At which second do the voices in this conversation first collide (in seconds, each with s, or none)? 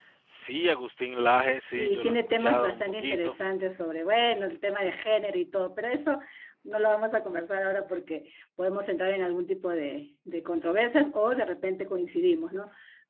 1.5 s